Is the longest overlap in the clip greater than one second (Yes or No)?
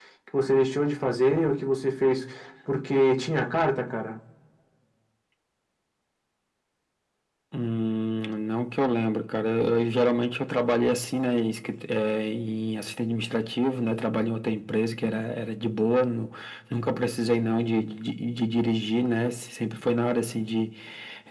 No